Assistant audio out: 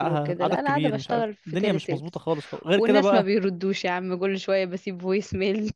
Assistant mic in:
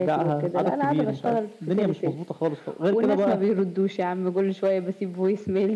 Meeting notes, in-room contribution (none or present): none